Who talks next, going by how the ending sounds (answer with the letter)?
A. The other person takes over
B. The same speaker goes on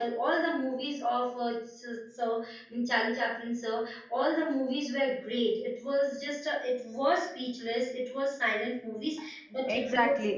A